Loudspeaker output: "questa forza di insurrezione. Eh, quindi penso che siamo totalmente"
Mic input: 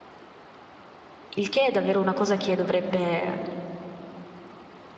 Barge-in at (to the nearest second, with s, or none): 1 s